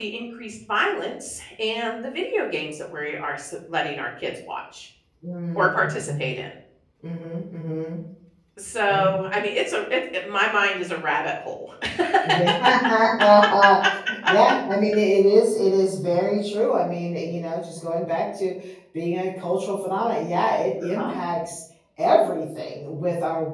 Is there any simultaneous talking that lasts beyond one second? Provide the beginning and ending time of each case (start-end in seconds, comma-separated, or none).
none